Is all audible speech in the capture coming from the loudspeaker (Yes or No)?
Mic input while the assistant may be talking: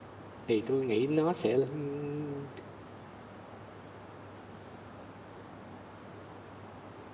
No